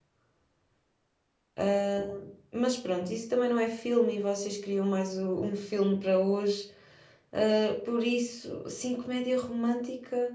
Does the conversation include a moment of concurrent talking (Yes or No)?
No